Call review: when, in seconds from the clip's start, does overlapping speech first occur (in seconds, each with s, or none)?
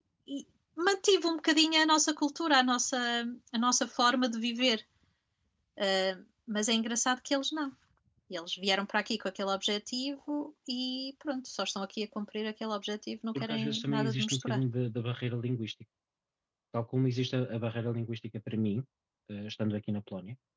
13.3 s